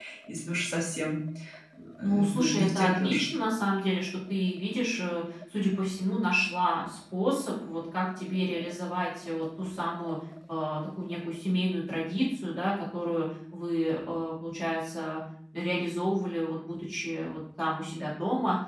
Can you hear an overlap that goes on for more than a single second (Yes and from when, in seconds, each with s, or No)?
Yes, from 2.0 s